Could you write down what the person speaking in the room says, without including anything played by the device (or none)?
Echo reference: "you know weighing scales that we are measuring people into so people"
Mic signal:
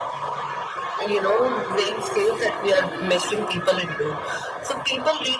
then how do people step away